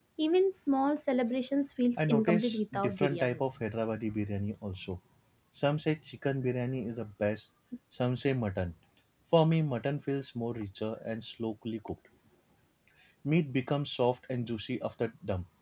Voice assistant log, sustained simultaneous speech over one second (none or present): present